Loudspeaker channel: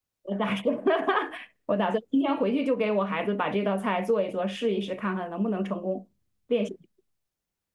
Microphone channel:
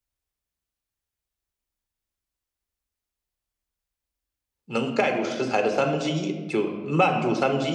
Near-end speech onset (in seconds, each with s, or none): 4.7 s